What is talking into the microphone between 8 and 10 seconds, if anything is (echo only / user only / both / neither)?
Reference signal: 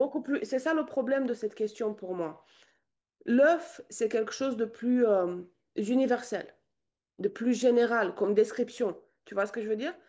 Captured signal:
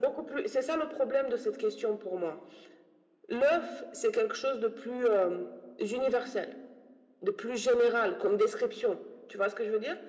echo only